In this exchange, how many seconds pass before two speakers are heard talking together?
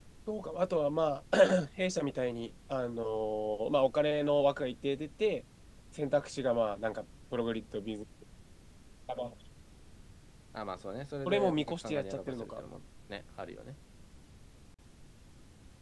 11 s

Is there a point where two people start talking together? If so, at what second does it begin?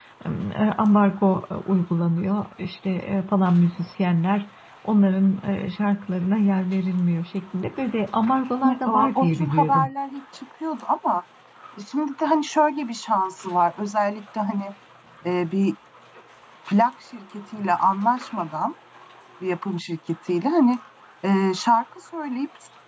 9 s

